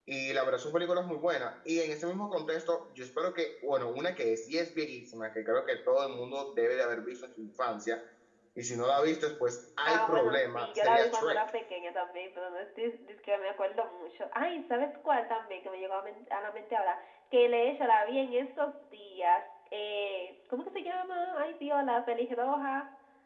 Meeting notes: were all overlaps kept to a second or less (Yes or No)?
No